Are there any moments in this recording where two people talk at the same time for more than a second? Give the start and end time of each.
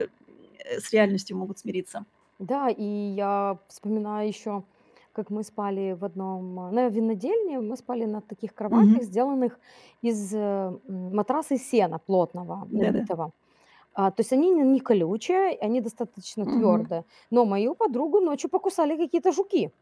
none

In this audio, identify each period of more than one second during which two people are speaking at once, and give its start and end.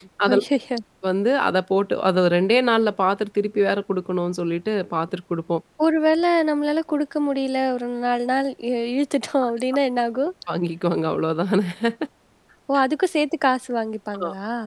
none

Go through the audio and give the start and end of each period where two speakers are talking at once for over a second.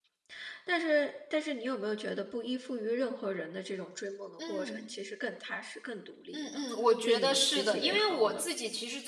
7.0-8.4

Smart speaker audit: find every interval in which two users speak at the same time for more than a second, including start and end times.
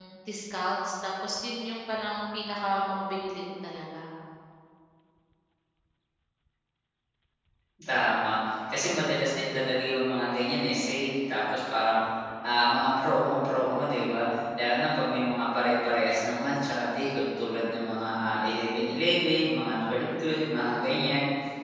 none

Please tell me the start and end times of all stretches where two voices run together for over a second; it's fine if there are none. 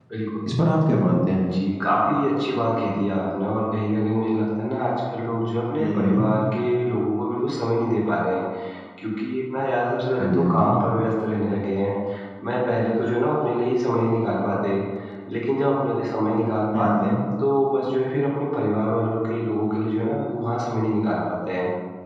none

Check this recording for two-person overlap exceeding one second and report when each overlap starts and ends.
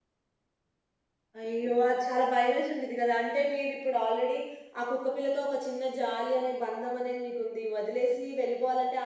none

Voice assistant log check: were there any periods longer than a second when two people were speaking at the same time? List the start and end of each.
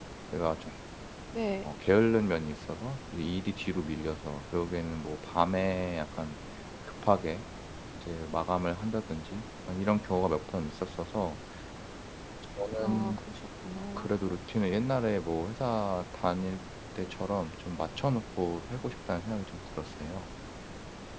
none

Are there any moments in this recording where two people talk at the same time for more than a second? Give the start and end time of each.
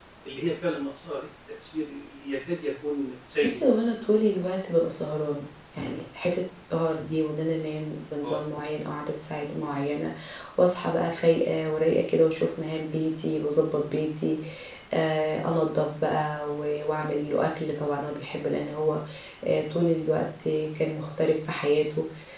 none

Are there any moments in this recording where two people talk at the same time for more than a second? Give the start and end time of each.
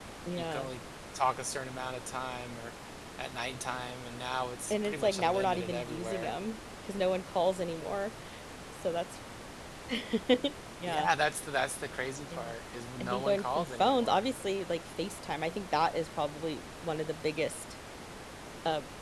4.7-6.3, 13.0-14.2

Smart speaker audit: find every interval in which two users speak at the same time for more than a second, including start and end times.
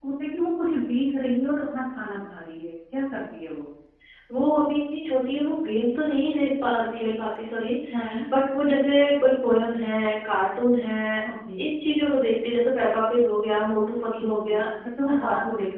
none

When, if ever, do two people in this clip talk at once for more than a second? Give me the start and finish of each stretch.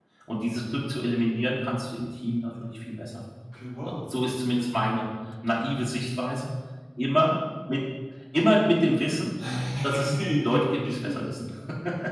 10.1-11.5

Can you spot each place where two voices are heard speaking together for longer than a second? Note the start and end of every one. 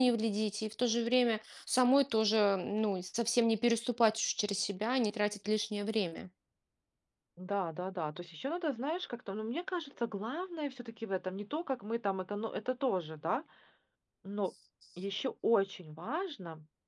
none

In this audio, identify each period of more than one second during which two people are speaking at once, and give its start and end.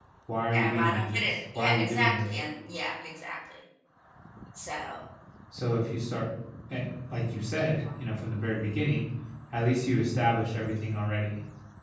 0.5-2.3

